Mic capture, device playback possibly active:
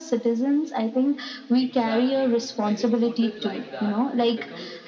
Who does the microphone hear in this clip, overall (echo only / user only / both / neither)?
both